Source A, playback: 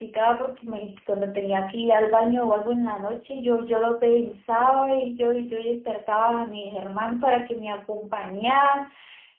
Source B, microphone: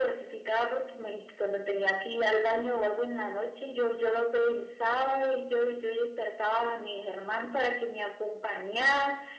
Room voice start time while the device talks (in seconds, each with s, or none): none